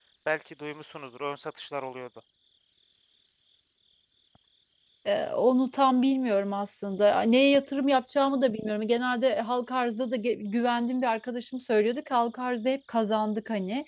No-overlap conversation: Yes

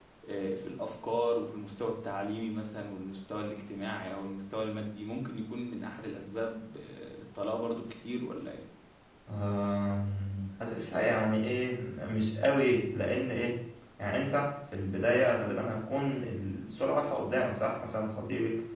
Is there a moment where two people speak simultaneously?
No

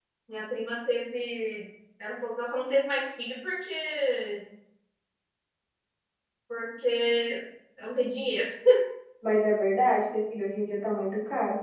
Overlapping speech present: No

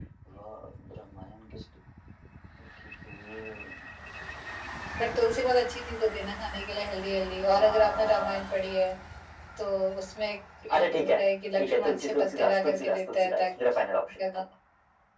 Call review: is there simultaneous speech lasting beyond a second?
Yes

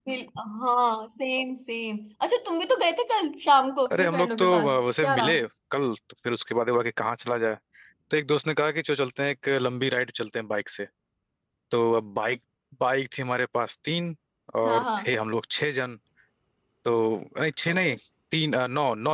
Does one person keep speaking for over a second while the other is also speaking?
Yes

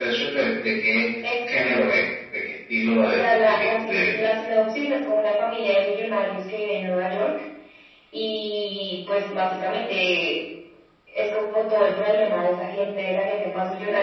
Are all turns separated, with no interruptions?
No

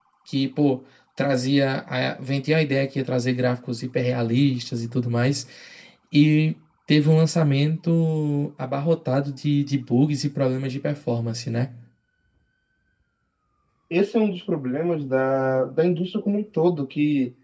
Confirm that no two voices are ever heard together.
Yes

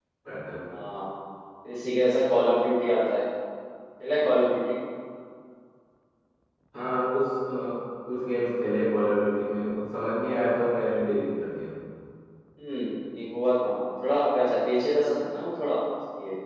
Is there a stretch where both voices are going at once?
No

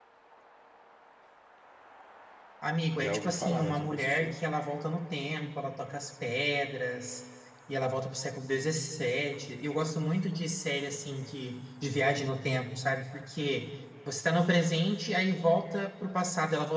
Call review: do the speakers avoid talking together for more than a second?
No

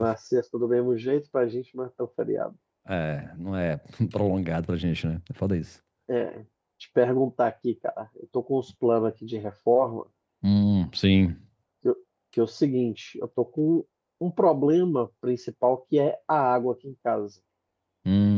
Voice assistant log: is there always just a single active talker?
Yes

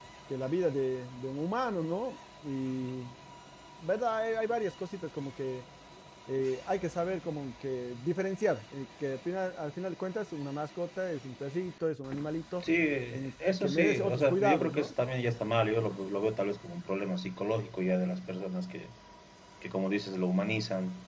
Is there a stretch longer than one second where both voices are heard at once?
Yes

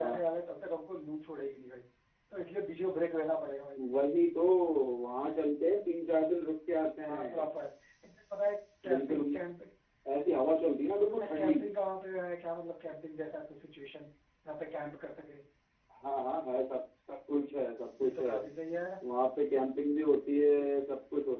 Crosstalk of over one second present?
No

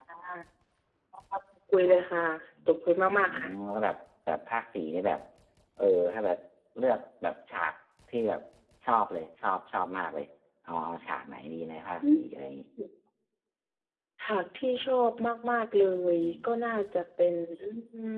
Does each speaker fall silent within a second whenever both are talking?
Yes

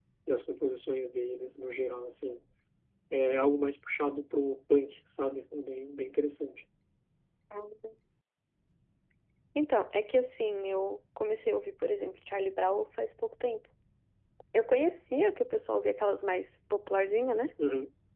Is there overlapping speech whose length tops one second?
No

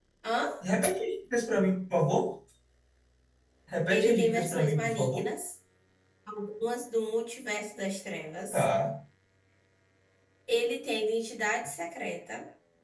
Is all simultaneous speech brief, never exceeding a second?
No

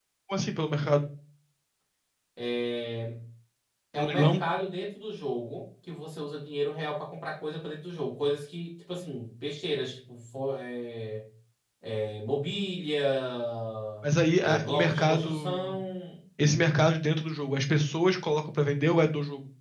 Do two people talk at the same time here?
Yes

